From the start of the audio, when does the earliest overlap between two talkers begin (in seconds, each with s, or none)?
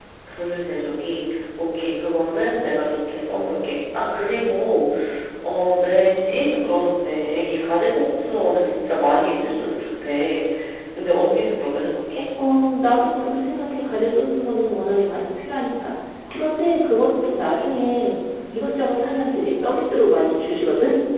none